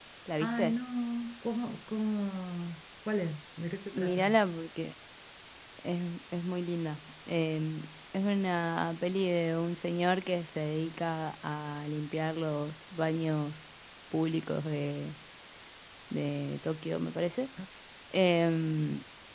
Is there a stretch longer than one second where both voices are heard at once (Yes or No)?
No